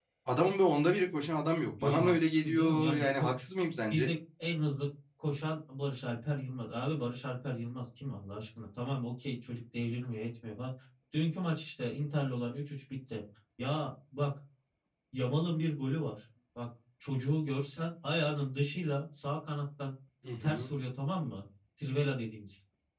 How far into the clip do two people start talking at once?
1.8 s

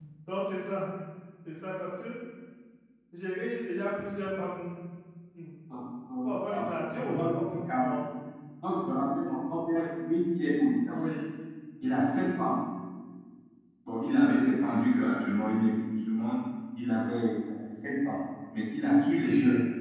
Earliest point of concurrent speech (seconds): 6.2 s

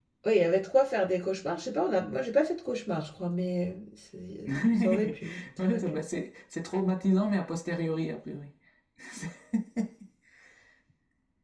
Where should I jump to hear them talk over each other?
4.5 s

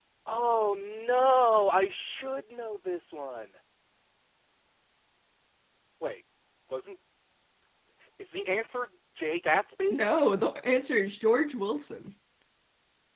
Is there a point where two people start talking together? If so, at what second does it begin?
none

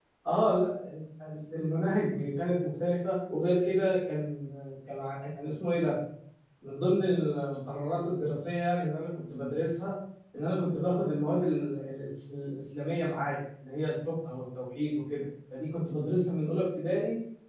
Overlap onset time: none

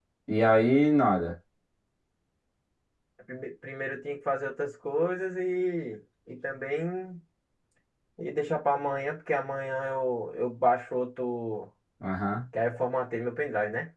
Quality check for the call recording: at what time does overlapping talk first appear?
none

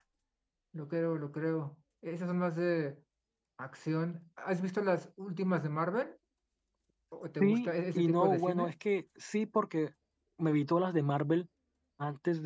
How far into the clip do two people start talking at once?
7.4 s

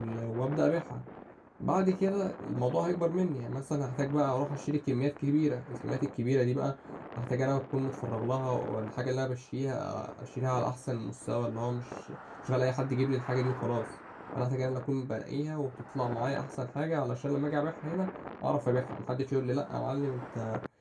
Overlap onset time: none

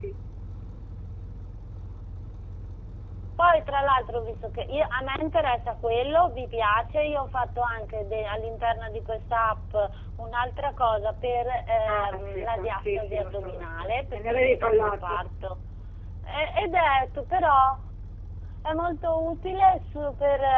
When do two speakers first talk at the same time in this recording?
11.9 s

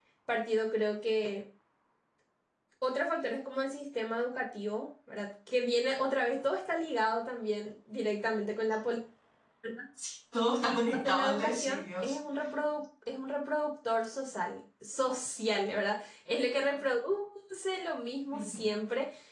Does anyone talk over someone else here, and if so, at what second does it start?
10.6 s

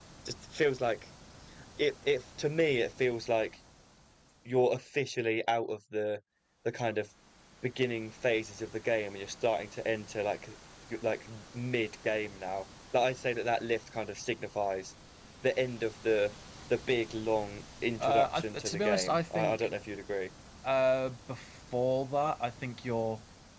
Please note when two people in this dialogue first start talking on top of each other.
18.0 s

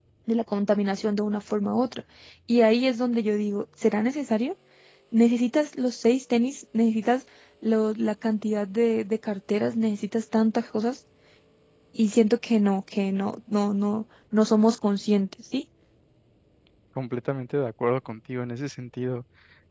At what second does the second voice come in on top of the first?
none

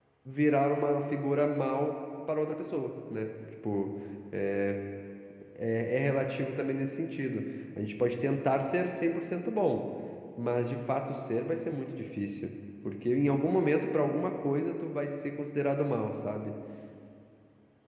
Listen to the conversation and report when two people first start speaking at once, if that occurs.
none

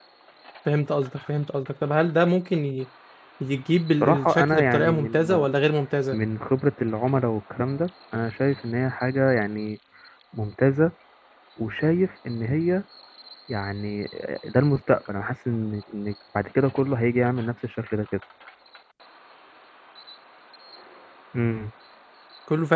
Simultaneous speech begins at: 4.0 s

